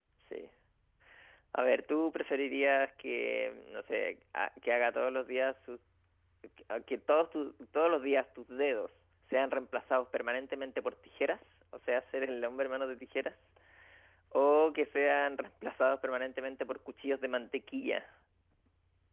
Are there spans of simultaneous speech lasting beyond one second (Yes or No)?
No